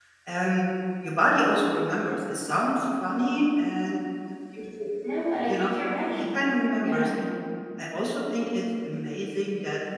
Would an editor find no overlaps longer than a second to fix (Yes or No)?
Yes